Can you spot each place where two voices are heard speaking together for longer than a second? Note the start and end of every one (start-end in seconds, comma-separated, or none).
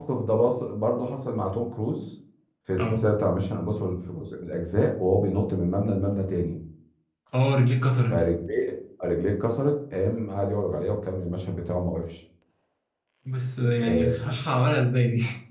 none